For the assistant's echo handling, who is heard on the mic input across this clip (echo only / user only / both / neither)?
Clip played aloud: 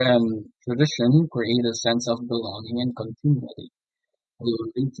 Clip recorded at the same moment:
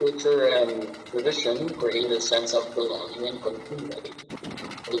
echo only